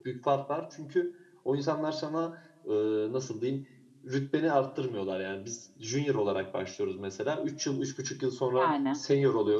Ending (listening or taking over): listening